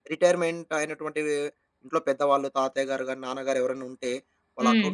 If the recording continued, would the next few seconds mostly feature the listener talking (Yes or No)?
No